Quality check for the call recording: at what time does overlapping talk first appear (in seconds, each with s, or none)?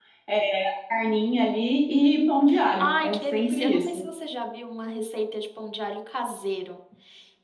2.8 s